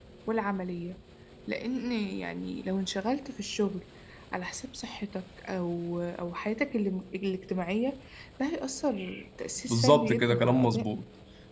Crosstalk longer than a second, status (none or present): present